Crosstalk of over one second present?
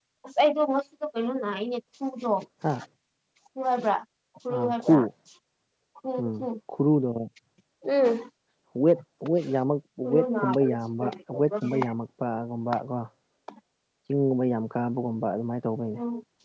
Yes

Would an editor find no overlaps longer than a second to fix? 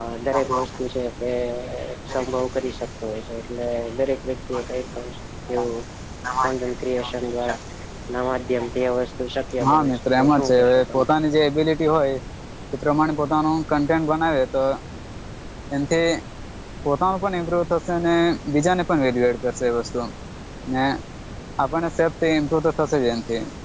No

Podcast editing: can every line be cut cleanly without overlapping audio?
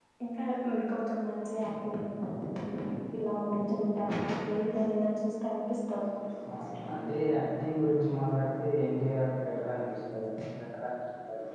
Yes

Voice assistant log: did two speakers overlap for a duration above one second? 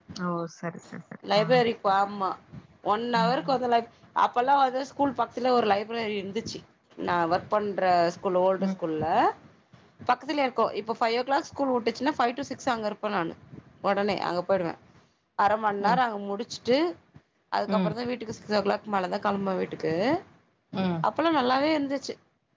No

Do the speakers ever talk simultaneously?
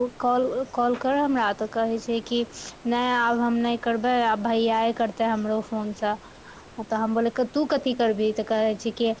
No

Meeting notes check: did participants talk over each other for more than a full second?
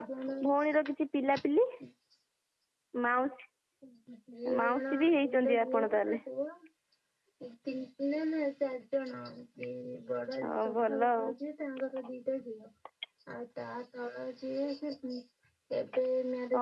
Yes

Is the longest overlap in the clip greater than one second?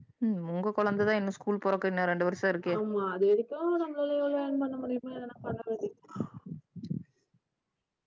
No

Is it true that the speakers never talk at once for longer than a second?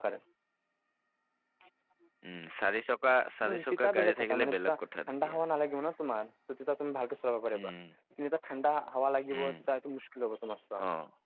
No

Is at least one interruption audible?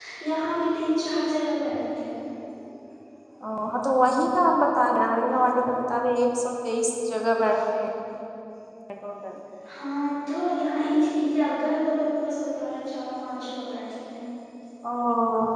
No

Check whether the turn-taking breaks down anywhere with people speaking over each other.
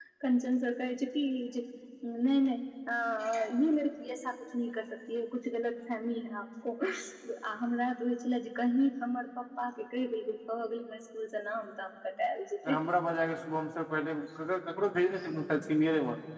No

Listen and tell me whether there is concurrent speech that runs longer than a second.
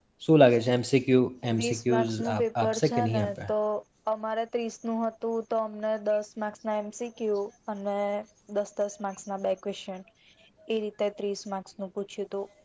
Yes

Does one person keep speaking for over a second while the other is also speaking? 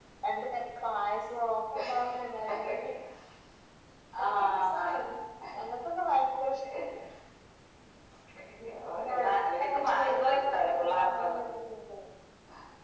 Yes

